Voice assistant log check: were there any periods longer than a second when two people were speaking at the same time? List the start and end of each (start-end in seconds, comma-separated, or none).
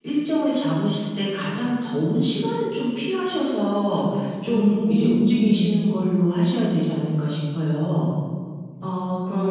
4.5-5.8